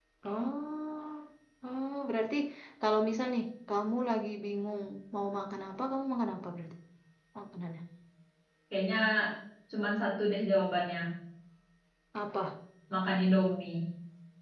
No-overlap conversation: Yes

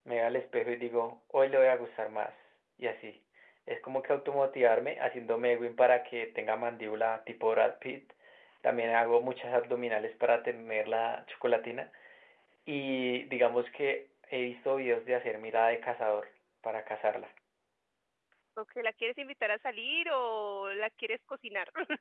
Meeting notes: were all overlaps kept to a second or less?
Yes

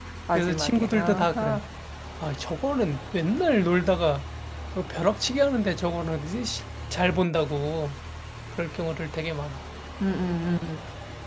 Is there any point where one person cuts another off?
Yes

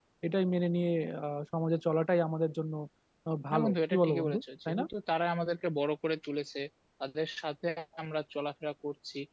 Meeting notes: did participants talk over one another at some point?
Yes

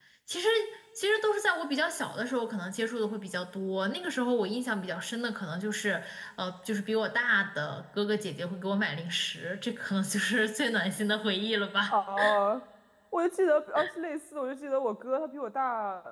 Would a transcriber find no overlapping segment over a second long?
Yes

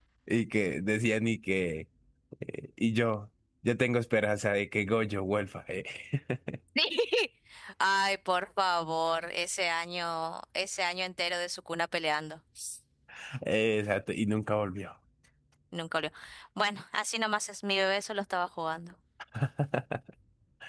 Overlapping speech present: No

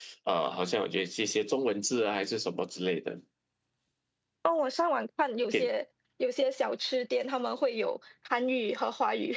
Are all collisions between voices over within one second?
Yes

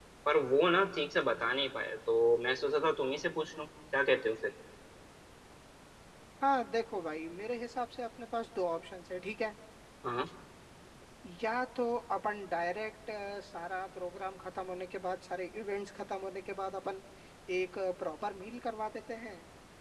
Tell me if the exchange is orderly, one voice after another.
Yes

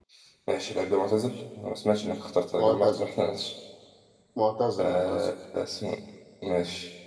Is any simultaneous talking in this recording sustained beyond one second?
No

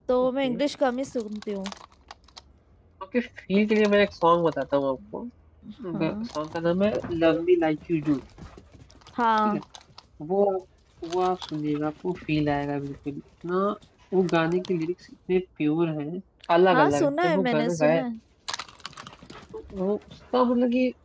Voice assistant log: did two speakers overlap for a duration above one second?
Yes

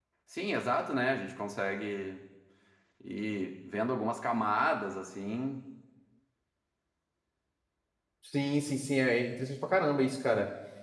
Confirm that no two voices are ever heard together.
Yes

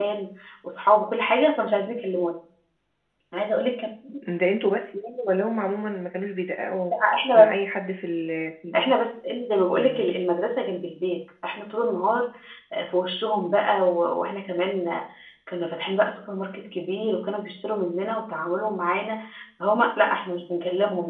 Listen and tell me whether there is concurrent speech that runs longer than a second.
No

